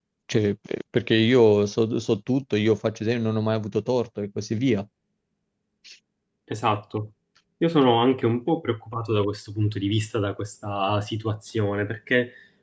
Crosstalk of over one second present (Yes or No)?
No